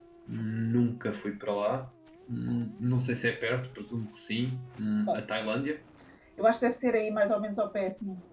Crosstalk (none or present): none